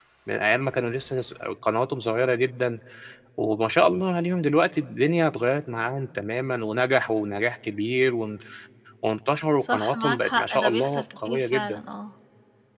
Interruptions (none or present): present